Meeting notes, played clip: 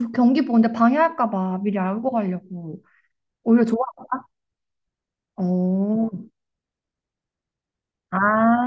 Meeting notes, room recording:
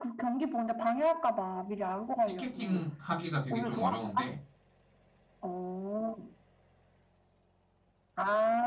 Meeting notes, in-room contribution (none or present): present